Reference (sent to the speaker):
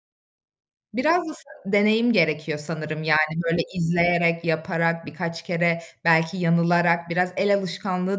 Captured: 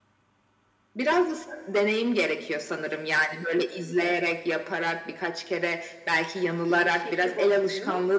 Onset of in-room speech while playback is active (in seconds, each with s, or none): 6.7 s